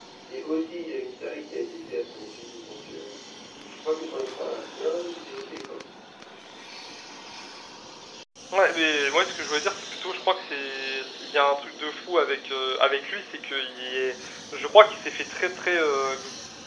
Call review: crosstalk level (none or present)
none